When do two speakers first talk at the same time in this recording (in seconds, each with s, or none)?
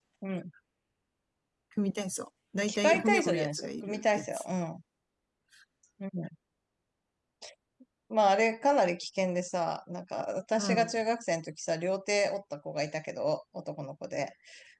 2.6 s